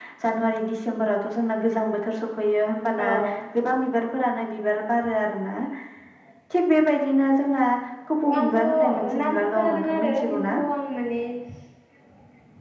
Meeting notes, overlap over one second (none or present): present